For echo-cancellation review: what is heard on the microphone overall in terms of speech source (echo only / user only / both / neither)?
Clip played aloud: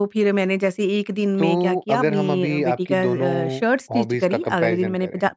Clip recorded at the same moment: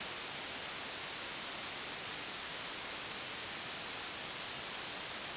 neither